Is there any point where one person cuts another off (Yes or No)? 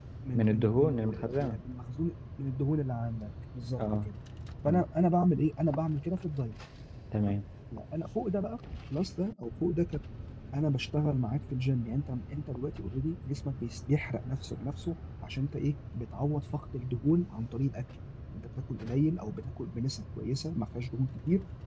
Yes